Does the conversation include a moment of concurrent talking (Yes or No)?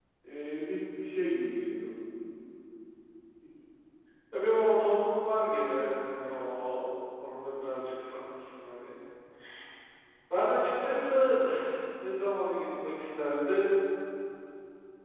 No